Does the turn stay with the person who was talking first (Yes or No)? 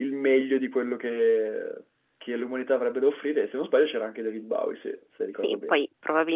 No